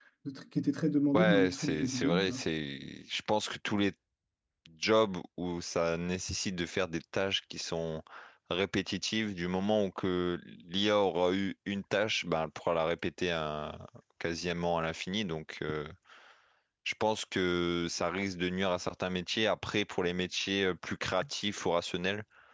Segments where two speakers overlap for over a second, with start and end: 1.1-2.4

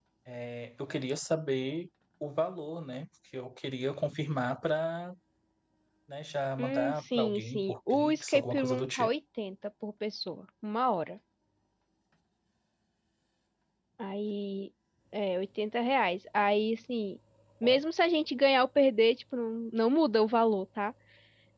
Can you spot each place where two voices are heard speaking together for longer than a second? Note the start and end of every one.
6.6-9.1

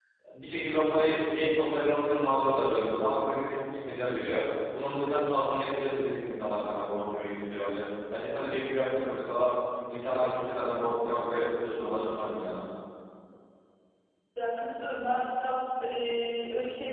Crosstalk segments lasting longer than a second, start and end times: none

